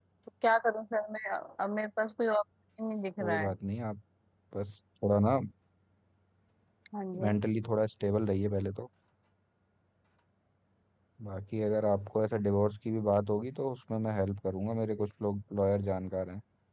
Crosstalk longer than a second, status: none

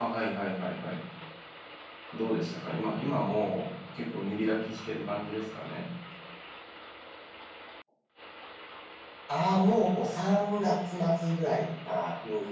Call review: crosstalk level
none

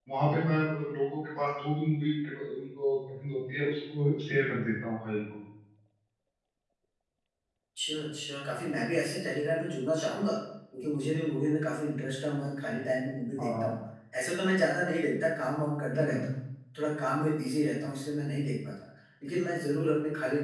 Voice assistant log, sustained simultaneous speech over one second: none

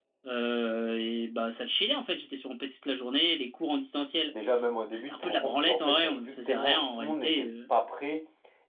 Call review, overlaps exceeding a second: present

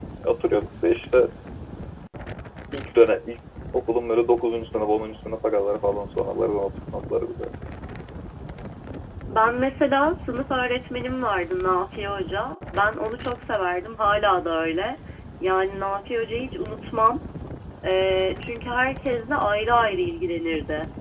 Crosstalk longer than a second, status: none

